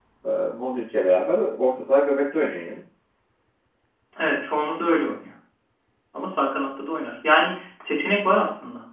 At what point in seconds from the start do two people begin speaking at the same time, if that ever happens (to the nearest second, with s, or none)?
none